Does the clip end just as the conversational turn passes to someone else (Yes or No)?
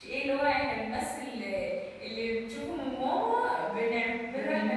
No